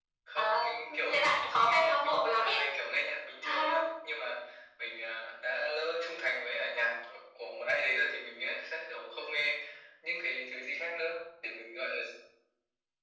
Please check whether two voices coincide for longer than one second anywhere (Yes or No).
Yes